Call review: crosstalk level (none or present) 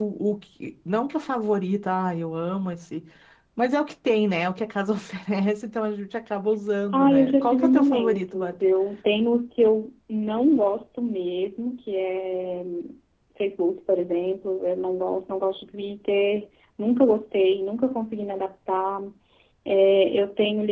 present